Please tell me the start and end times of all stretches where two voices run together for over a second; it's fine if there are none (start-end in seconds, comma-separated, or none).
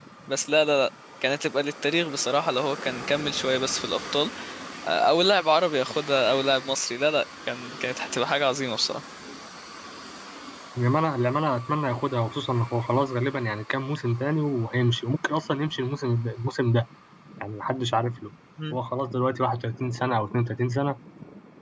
none